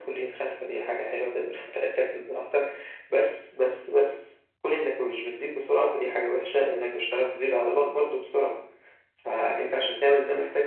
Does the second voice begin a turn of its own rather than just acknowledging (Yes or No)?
No